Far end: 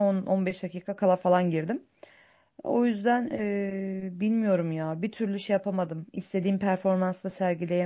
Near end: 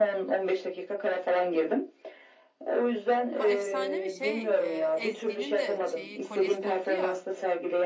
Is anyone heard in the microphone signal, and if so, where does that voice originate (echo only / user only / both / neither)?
both